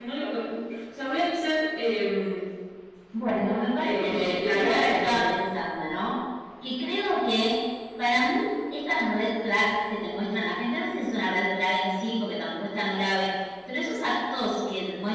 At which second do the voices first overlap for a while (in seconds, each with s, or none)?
3.8 s